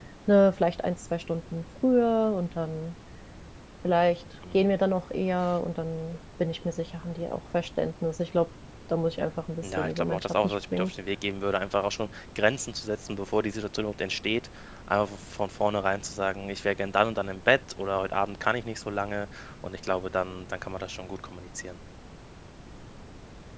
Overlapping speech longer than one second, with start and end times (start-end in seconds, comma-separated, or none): 9.6-10.9